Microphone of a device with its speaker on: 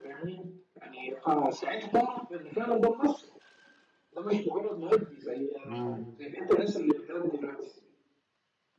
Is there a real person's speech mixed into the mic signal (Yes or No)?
Yes